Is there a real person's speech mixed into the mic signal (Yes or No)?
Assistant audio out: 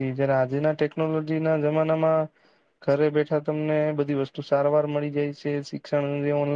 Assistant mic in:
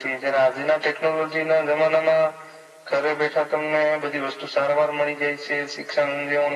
No